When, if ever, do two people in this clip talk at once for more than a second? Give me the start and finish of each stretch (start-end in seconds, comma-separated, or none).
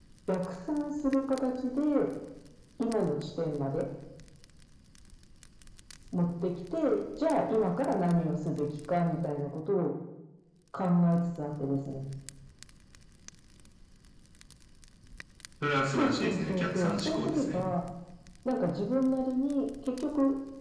15.8-17.6